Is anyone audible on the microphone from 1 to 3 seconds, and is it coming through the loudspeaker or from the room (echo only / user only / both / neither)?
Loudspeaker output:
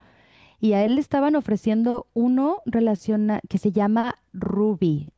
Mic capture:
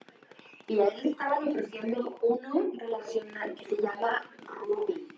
echo only